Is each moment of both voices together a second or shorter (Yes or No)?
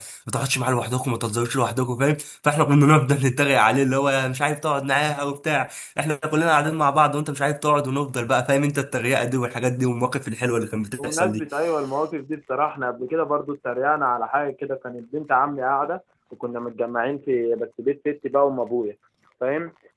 Yes